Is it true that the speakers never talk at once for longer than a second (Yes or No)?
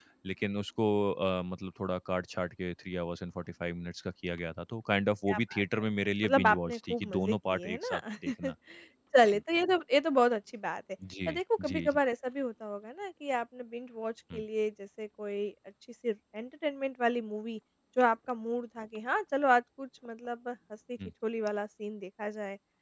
No